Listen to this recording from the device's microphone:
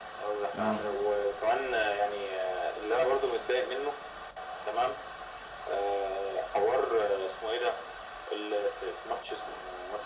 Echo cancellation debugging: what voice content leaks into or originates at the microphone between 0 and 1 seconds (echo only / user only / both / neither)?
both